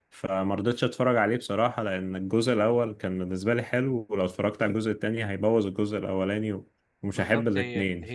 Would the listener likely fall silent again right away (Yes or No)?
No